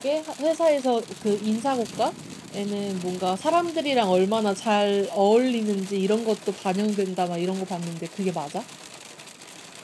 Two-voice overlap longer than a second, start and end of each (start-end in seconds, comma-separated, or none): none